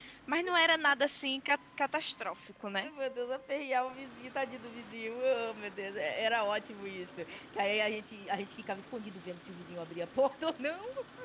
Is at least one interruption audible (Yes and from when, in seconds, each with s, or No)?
No